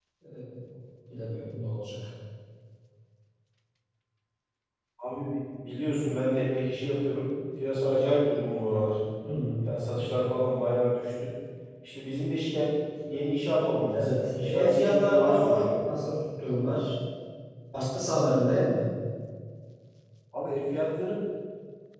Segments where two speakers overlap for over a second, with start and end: 13.9-15.8

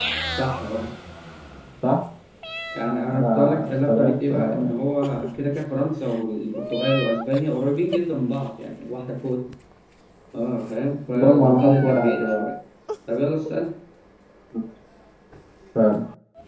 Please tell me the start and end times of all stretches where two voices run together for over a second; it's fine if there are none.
3.1-4.7, 11.1-12.4

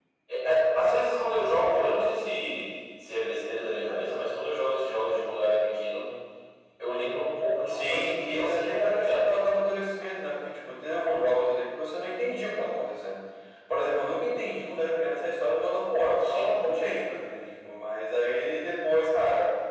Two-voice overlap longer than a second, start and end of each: 7.7-9.2

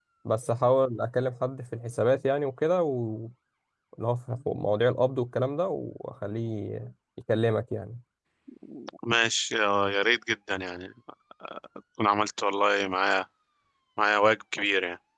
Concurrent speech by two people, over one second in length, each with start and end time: none

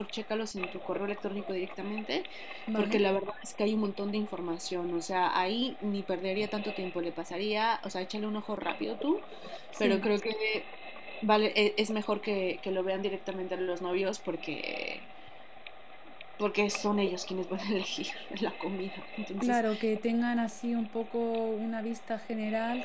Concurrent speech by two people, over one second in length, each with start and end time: none

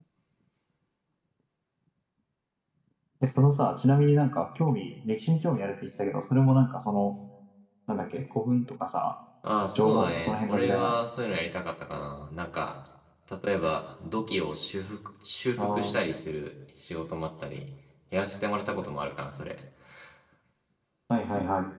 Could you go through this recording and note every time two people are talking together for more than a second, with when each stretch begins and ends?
9.8-11.0

